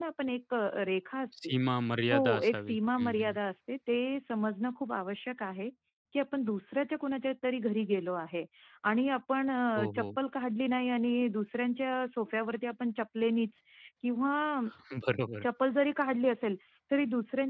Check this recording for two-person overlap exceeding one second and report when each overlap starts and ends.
2.1-3.3

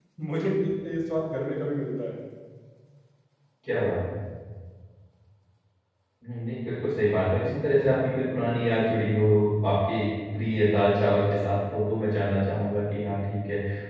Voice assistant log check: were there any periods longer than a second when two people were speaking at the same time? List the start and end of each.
none

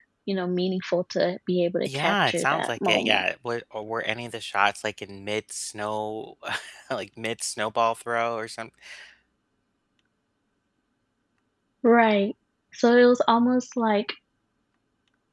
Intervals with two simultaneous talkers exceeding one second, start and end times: 1.8-3.2

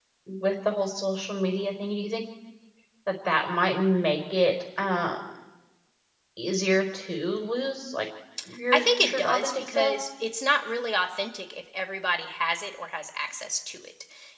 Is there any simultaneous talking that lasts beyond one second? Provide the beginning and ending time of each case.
8.7-9.9

